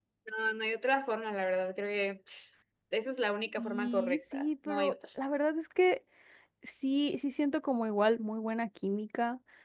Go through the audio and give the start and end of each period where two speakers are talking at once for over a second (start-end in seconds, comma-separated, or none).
3.6-4.9